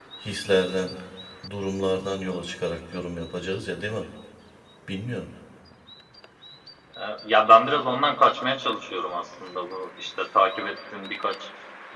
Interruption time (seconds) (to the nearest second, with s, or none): none